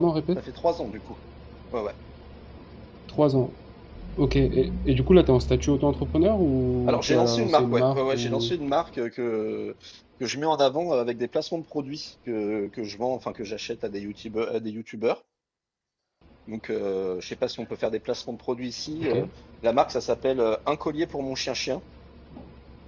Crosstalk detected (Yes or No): Yes